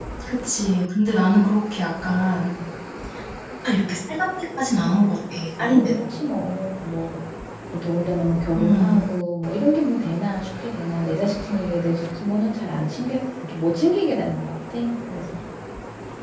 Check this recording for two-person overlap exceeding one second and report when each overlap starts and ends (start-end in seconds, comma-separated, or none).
none